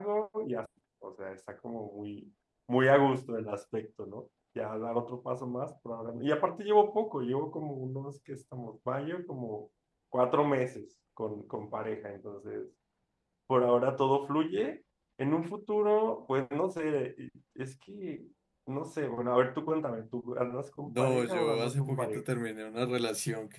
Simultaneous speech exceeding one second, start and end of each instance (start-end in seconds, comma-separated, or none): 20.9-22.2